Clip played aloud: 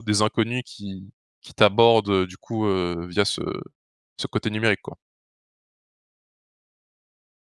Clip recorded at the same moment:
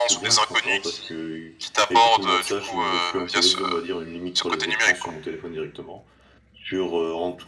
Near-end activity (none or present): present